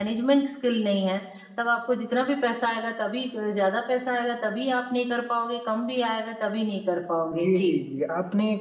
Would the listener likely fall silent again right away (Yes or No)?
No